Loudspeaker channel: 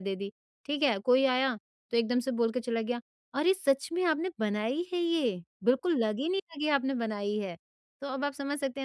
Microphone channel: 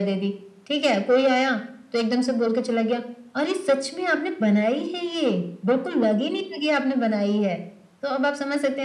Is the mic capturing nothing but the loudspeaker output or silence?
Yes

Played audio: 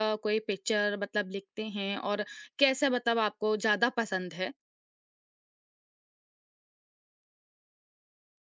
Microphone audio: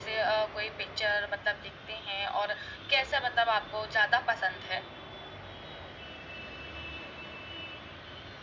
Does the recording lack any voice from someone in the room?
Yes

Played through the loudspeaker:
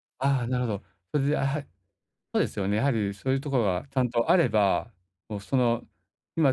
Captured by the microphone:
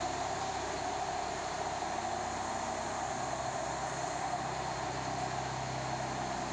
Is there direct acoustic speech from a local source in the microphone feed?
No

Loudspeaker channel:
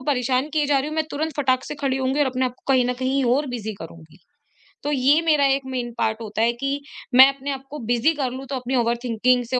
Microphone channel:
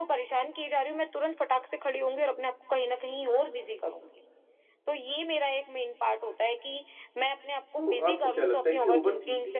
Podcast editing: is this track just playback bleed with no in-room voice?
No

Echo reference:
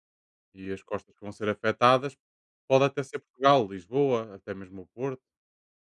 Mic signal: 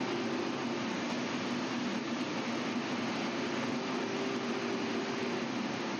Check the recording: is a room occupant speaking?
No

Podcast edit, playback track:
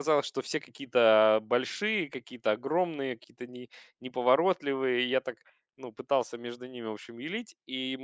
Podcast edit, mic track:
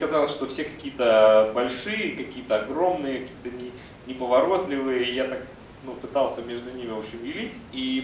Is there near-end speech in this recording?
No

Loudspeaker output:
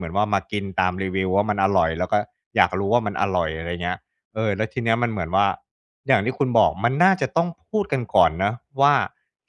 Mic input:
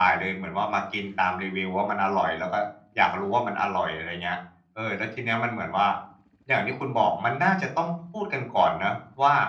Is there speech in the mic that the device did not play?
No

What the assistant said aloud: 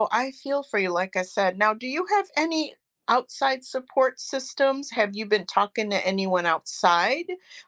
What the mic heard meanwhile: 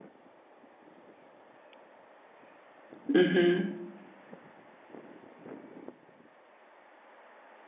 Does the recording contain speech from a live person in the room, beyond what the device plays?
Yes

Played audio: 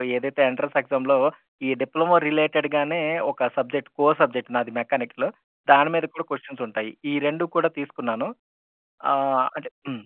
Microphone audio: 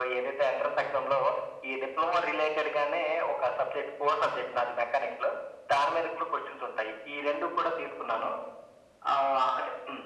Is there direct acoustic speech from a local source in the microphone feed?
No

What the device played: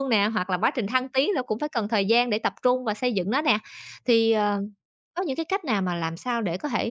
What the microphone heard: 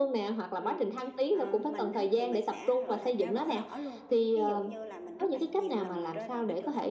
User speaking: Yes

